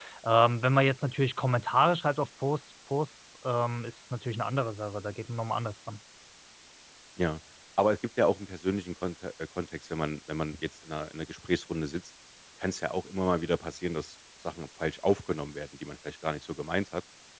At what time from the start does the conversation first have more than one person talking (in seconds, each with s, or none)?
none